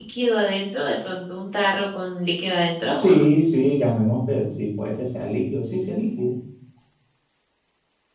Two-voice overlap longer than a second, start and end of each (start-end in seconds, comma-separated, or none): none